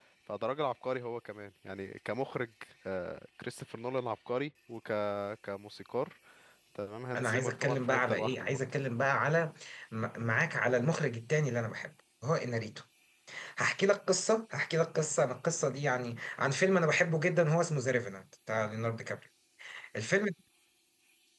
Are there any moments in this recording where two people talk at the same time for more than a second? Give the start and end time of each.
7.2-8.6

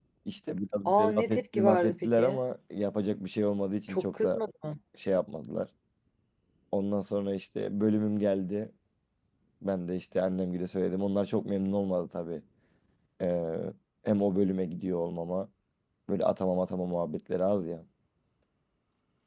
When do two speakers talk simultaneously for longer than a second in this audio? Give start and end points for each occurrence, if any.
1.0-2.4

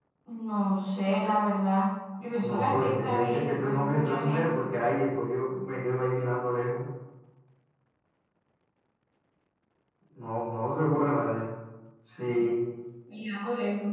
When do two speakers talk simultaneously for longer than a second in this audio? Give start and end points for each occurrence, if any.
2.4-4.7

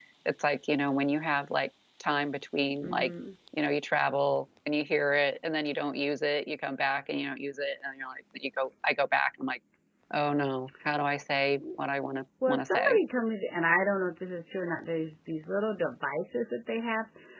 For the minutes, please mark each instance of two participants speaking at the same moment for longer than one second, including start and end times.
none

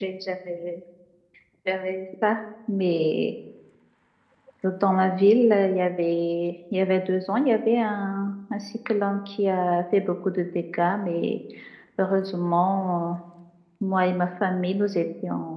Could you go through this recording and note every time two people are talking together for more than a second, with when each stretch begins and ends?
none

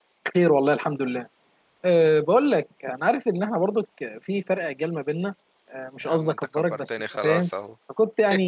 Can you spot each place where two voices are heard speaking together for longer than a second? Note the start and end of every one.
6.0-7.5

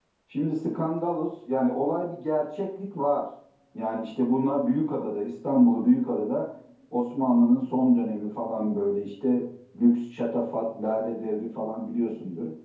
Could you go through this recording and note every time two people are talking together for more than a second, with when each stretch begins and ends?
none

